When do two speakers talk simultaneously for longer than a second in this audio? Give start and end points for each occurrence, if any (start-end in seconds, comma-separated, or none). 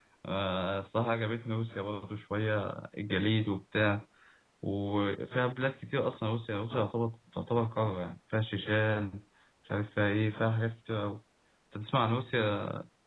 none